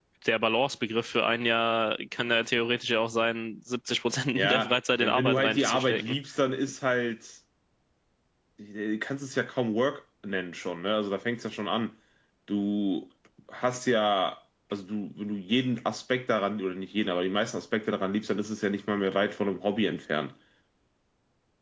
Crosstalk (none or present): present